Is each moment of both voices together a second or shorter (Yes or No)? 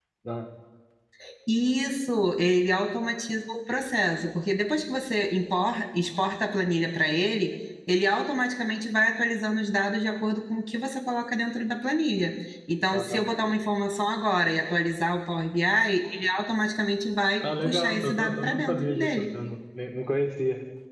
No